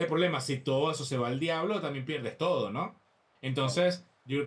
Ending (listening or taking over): listening